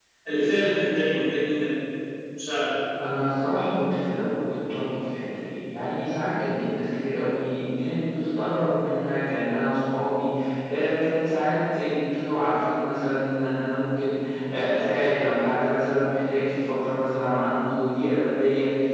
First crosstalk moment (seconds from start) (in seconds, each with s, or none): none